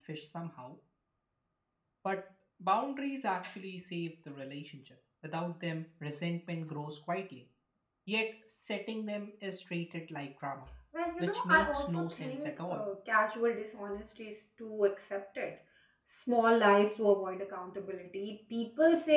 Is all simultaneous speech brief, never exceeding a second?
No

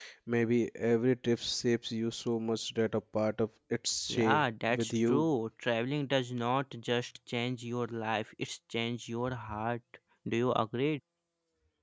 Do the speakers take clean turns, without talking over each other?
No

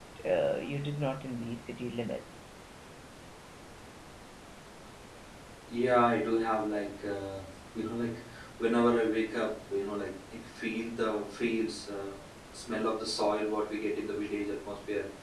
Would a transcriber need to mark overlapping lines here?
No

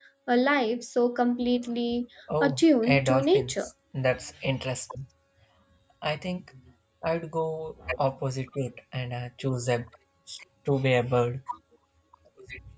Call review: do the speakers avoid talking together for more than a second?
No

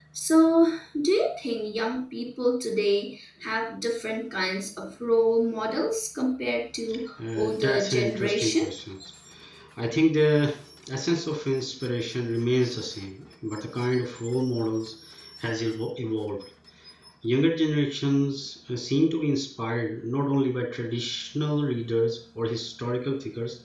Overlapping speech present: Yes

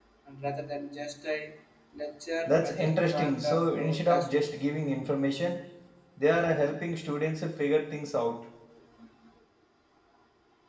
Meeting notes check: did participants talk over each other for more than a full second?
Yes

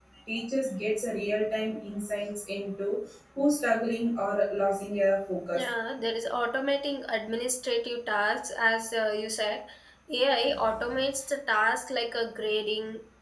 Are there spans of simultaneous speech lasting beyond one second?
No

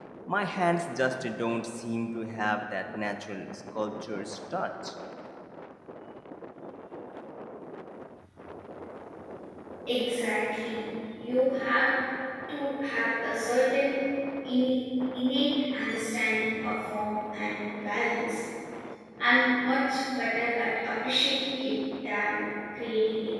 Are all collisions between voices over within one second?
Yes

